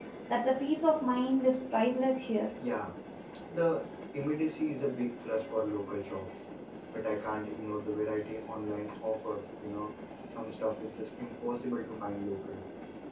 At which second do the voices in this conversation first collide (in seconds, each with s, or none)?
none